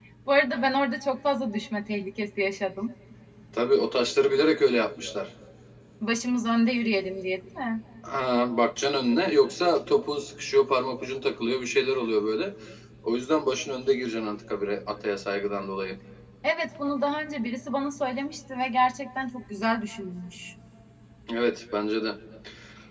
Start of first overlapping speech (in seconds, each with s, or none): none